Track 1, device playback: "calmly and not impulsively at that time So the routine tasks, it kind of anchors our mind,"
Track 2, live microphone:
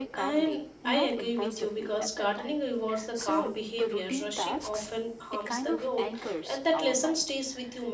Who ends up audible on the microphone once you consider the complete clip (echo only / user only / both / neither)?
both